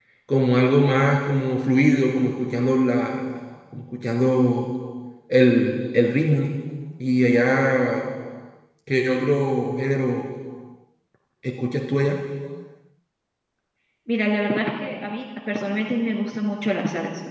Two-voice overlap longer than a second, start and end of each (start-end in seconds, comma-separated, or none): none